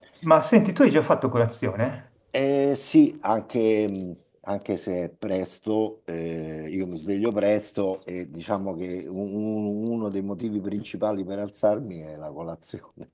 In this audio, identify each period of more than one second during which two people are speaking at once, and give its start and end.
none

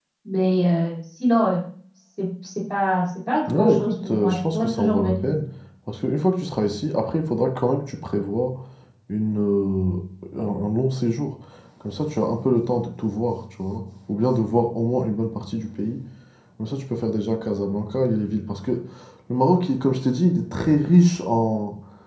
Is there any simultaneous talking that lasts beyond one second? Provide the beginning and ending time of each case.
3.6-5.2

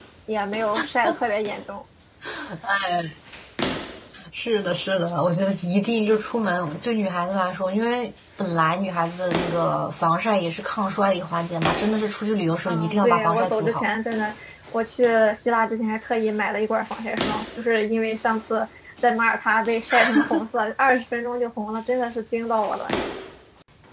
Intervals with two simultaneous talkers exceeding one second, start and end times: 12.7-13.9

